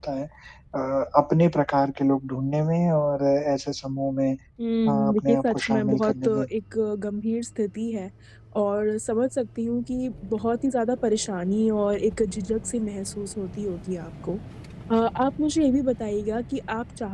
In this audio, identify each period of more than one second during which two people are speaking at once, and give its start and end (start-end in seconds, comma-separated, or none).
4.9-6.5